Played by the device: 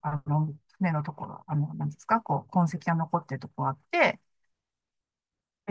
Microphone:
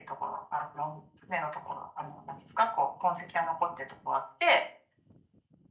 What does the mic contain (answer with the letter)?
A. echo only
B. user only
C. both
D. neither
A